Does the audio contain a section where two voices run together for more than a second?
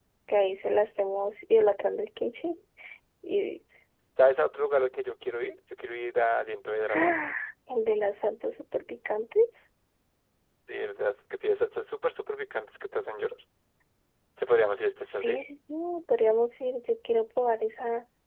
No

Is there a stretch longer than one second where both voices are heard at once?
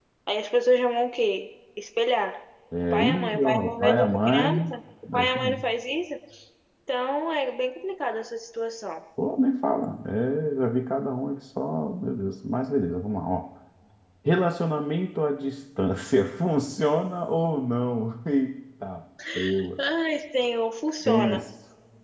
Yes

